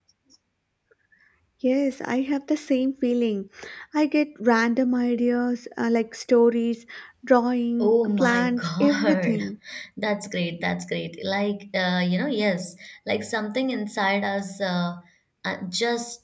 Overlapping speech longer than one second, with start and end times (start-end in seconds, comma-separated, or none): 7.8-9.4